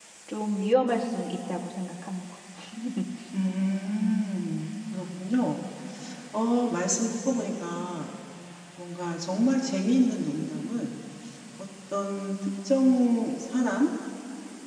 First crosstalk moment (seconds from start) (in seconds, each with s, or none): none